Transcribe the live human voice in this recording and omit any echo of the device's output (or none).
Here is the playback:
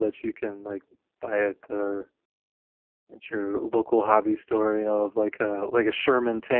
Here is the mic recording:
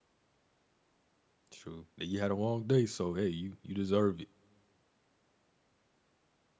true. Now, You had a long day, so hey, you you deserve it.